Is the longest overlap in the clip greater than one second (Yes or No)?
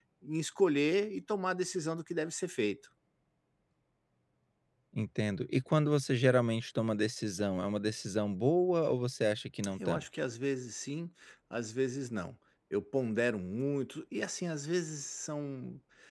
No